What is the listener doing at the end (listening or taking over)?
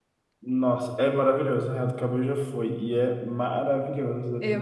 listening